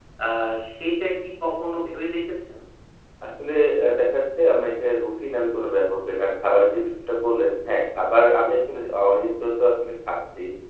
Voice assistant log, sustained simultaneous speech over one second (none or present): none